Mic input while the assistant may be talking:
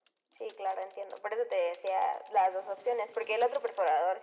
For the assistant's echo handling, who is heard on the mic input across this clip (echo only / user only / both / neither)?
echo only